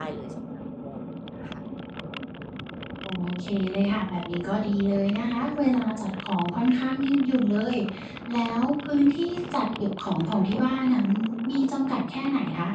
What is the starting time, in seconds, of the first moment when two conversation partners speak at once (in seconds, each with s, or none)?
none